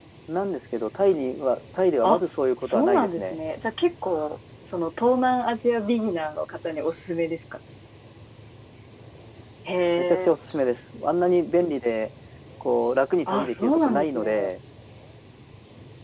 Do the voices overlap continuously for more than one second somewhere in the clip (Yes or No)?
Yes